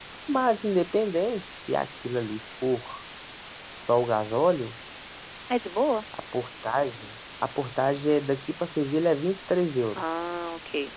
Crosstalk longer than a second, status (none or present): none